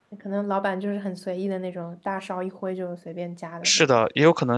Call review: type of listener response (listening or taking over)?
taking over